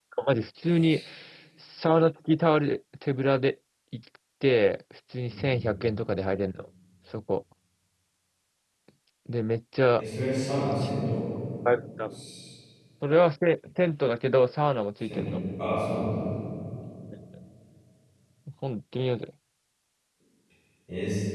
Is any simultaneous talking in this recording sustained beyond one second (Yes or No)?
No